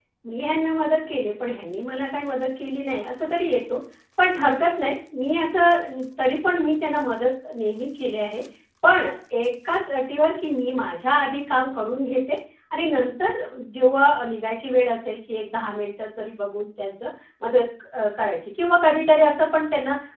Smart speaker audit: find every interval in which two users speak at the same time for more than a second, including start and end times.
none

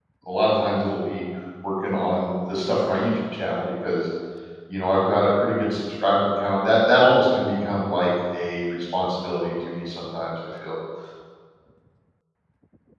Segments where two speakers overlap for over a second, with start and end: none

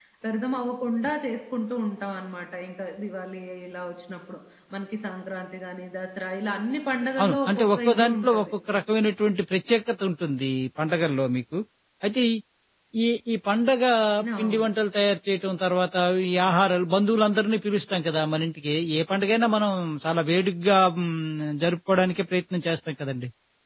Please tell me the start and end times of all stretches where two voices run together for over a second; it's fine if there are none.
7.2-8.5

